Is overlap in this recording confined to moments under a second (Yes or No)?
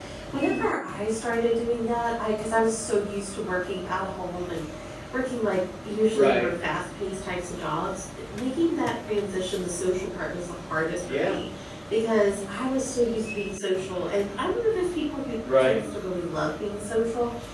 Yes